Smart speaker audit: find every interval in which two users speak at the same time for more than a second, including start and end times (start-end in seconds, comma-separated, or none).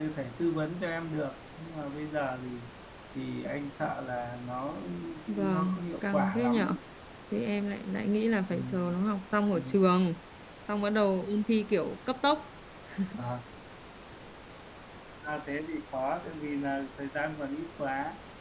5.3-6.7